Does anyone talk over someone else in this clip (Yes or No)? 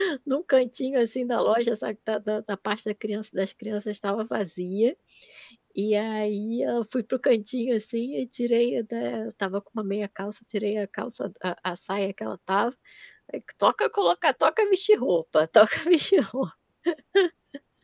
No